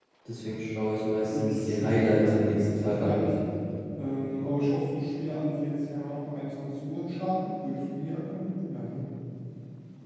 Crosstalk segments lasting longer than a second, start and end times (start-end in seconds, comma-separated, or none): 1.3-3.2